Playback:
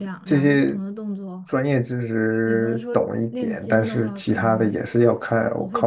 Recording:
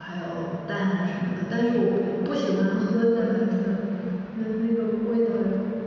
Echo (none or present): none